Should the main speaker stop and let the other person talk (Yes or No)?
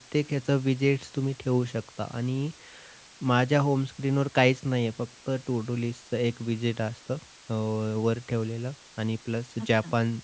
No